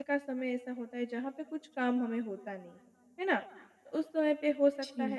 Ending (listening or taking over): listening